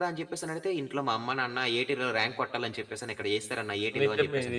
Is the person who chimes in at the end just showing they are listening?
No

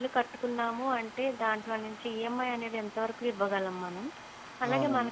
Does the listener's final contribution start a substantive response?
No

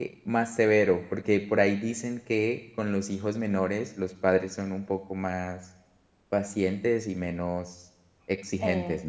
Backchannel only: No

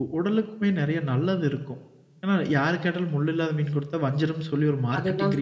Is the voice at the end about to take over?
Yes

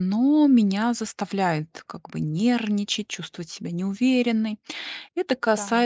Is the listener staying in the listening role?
Yes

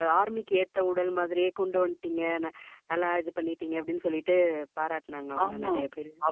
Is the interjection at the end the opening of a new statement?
Yes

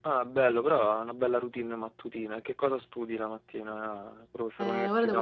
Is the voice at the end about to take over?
Yes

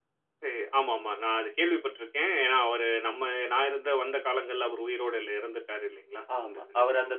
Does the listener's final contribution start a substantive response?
Yes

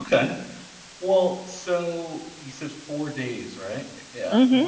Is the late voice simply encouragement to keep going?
Yes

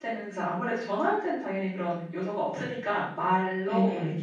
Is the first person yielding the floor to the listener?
No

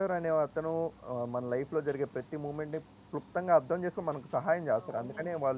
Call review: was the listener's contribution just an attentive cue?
No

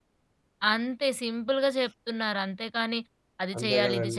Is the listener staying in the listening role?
Yes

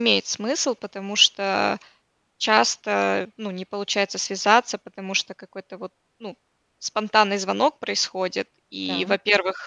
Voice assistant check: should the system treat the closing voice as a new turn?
No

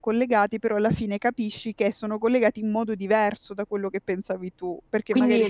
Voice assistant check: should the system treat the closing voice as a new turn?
Yes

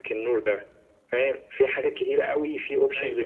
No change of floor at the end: Yes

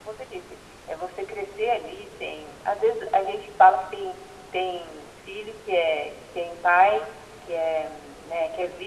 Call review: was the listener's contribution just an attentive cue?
Yes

